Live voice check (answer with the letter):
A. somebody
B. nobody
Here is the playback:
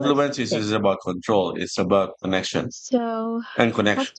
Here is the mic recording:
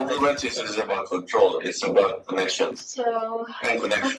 B